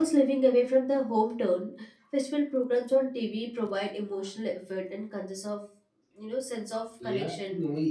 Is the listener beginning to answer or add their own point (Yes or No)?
Yes